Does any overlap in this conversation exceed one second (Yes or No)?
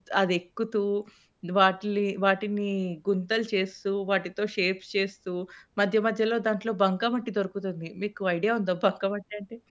No